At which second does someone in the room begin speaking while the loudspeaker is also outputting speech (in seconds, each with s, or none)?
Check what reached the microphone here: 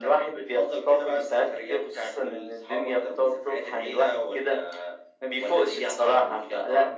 none